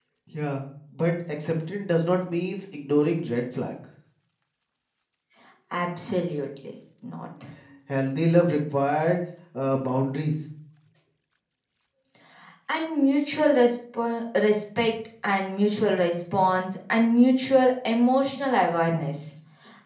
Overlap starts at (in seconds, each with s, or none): none